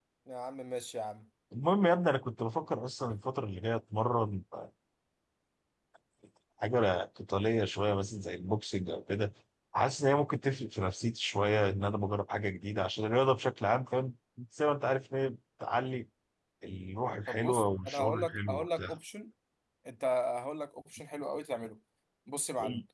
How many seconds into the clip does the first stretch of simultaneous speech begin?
17.3 s

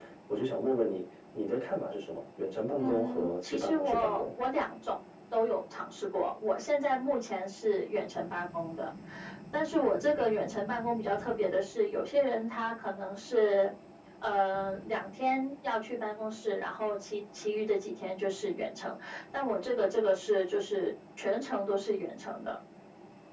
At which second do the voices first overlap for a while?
2.8 s

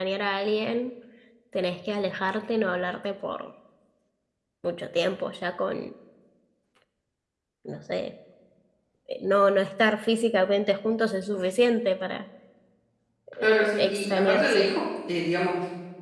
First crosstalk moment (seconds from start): 13.4 s

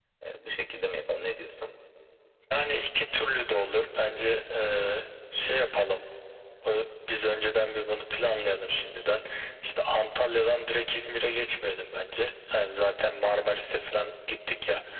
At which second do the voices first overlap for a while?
none

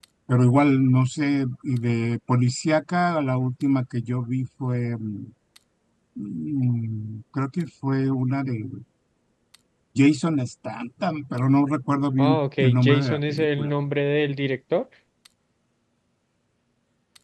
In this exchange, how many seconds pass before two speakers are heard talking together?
12.2 s

